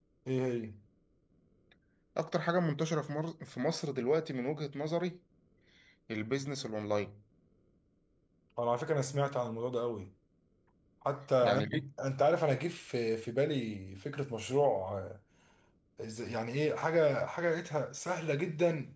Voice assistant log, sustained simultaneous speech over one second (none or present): none